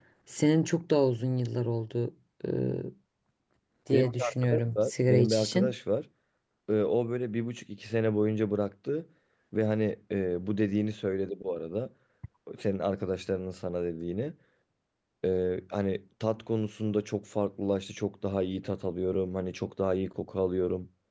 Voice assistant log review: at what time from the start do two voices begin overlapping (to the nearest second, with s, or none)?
4 s